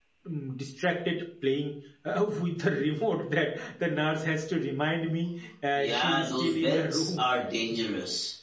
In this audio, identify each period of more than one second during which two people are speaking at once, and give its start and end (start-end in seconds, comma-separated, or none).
5.8-7.3